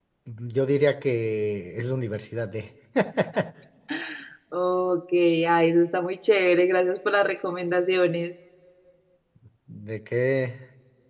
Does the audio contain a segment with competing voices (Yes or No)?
No